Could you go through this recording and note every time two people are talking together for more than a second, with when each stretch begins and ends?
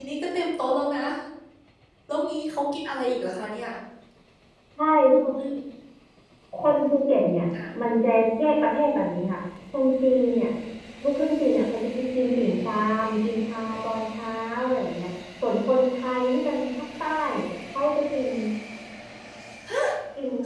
none

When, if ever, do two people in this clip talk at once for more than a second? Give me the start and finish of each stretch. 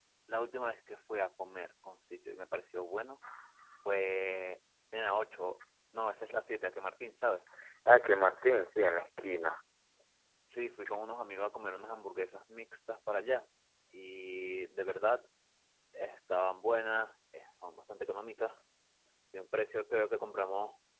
none

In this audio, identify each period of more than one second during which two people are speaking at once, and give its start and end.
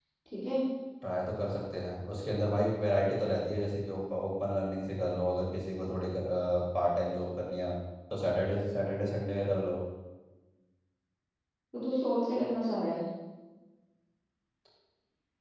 none

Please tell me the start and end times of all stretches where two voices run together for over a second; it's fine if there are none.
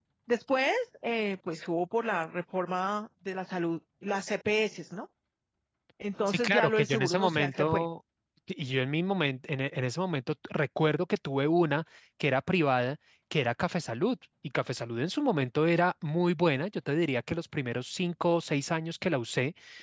6.3-7.9

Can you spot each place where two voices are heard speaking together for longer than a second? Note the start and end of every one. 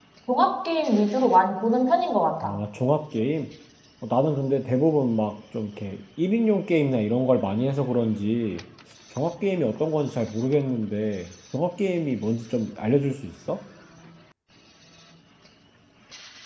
none

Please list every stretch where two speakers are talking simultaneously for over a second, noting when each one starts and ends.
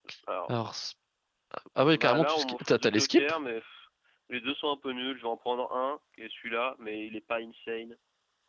1.9-3.3

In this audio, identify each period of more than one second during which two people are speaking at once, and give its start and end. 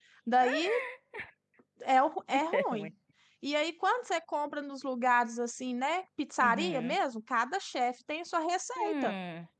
none

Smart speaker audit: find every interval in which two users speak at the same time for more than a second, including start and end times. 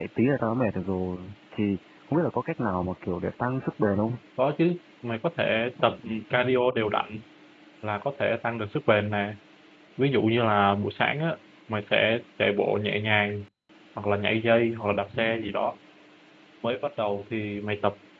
none

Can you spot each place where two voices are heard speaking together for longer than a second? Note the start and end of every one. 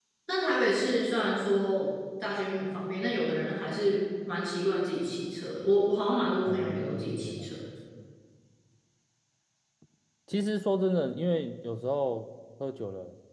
6.5-7.7

